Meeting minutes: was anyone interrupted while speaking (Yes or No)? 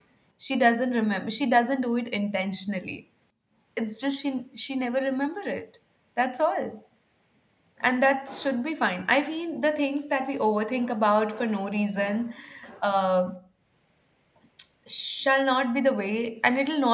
No